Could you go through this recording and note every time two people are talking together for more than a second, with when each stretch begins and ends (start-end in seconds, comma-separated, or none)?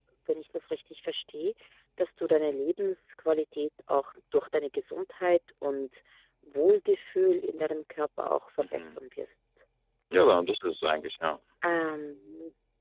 none